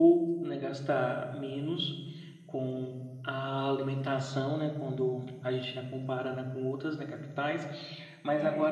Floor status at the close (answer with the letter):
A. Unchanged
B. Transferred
A